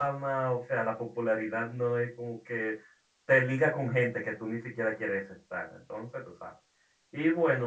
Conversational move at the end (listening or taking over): listening